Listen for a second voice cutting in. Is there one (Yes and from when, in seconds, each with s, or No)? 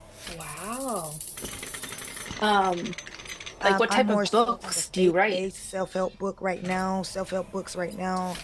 Yes, from 3.6 s